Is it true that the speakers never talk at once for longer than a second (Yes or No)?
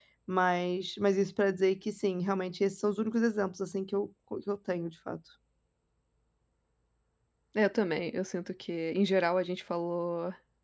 Yes